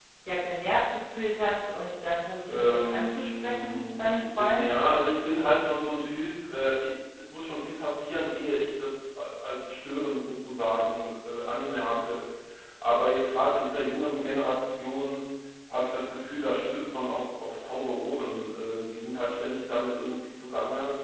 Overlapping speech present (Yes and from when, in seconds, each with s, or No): Yes, from 2.5 s